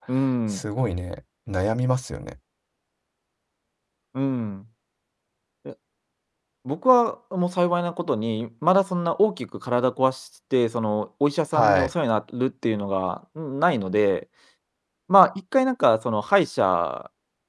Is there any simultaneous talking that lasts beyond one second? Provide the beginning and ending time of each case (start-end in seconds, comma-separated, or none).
none